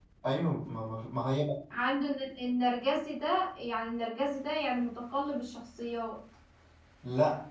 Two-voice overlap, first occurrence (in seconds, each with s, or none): none